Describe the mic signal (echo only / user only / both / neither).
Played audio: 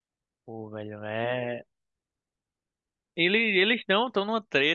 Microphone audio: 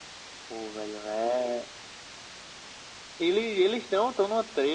echo only